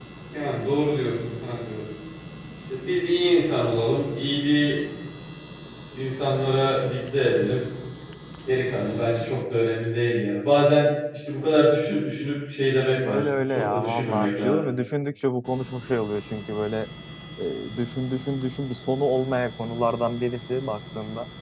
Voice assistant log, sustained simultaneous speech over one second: present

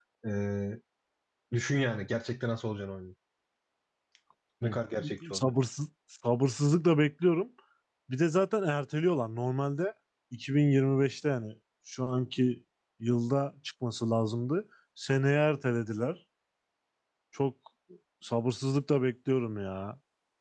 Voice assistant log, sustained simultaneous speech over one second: none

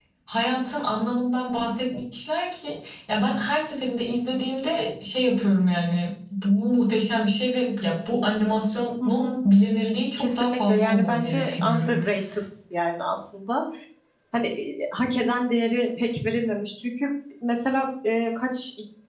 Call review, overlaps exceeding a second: present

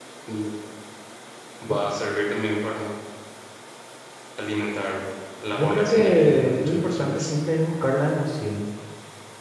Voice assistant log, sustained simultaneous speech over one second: present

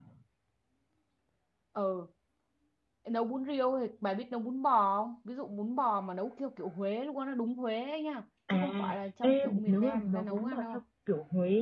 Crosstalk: present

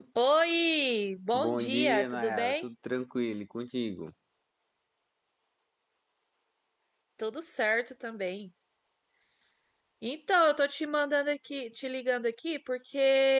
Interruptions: present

